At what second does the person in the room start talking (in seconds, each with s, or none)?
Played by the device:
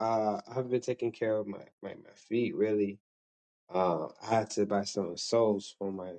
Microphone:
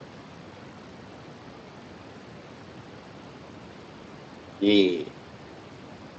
4.6 s